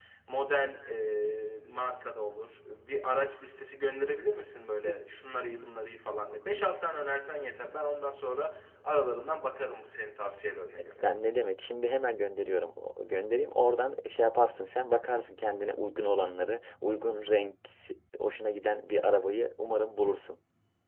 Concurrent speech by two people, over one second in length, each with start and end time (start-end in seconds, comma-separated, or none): none